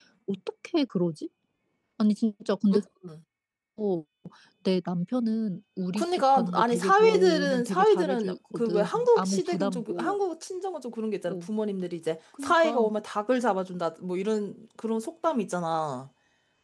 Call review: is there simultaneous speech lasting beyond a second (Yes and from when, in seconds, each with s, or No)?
Yes, from 6.0 s